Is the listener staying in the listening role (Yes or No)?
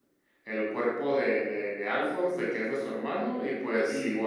Yes